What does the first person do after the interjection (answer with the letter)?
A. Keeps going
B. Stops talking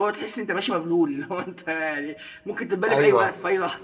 B